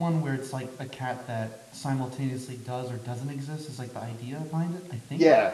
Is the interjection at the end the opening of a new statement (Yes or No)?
Yes